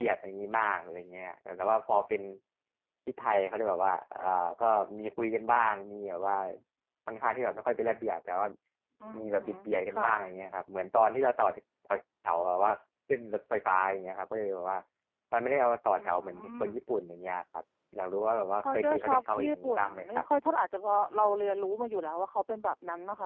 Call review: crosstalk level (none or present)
present